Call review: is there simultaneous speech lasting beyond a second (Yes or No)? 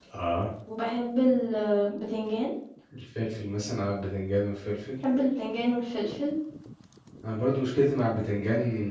No